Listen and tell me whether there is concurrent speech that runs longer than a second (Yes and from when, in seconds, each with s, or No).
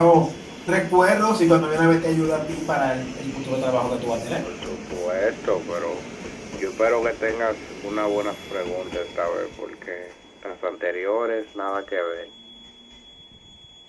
No